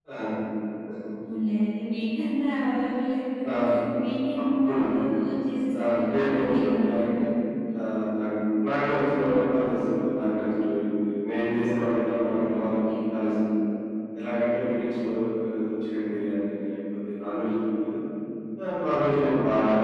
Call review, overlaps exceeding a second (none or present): present